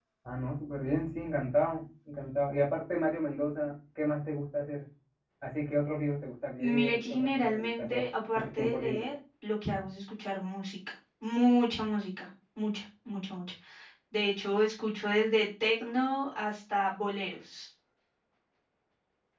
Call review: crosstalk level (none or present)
present